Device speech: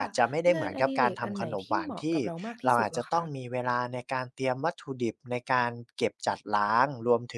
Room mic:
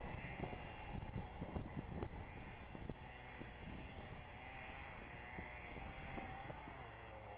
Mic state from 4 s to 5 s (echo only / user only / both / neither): neither